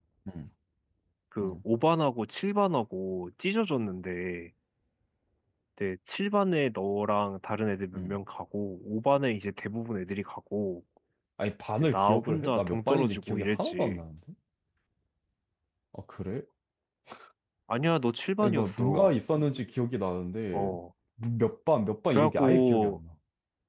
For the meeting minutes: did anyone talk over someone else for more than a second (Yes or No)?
Yes